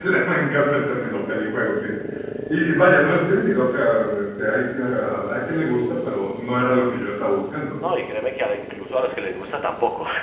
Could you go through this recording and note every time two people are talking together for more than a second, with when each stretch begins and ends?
none

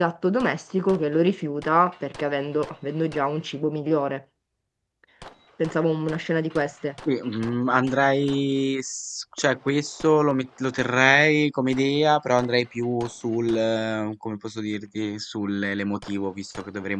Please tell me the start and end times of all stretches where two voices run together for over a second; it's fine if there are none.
none

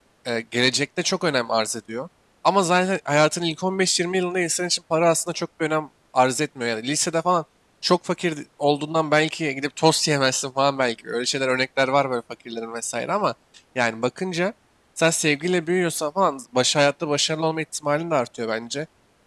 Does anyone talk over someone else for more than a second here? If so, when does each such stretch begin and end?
none

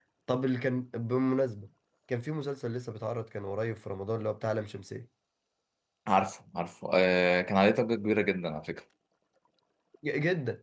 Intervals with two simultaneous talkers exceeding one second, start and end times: none

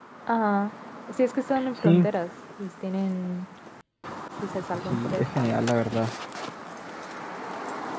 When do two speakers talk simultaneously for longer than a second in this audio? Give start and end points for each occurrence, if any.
none

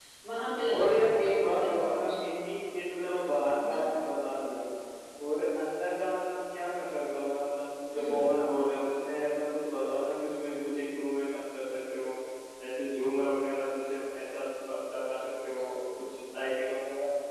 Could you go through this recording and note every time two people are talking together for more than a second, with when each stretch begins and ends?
0.7-2.1

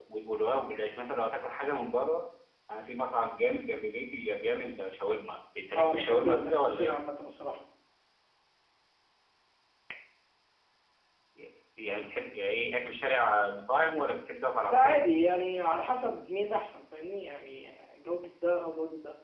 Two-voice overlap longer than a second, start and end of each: 5.8-7.0

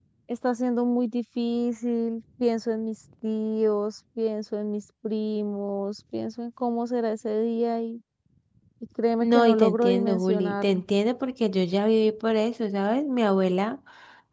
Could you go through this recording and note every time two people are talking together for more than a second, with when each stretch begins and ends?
9.2-10.8

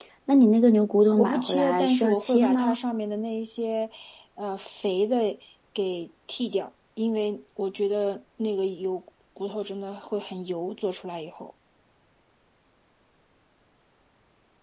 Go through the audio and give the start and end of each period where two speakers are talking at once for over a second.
1.2-2.8

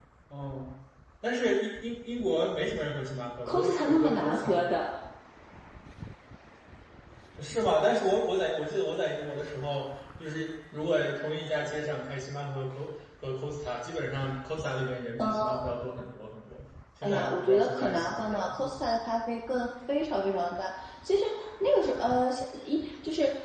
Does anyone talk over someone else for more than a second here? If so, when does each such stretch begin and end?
3.5-4.7, 17.0-18.7

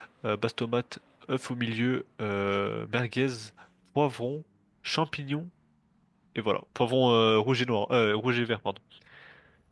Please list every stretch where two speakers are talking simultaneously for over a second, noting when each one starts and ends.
none

